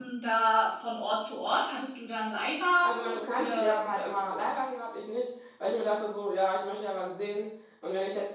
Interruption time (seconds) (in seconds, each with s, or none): 2.8 s